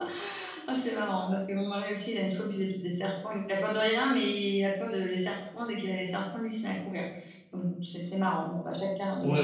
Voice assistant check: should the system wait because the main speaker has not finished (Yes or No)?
No